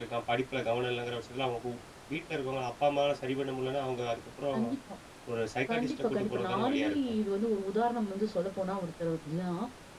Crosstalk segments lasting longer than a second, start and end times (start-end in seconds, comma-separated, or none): 5.7-7.2